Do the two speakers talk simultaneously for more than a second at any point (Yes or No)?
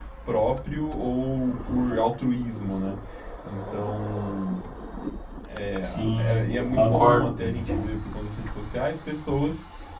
Yes